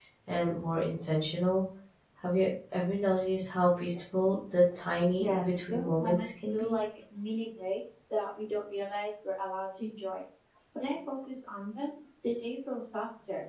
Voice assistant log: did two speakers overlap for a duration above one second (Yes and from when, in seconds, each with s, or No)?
Yes, from 5.2 s